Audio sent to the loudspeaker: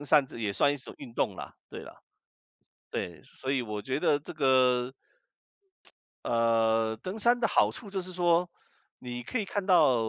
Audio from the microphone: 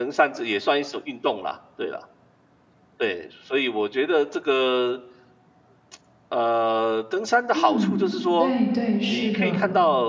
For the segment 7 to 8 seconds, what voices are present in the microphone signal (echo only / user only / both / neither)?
both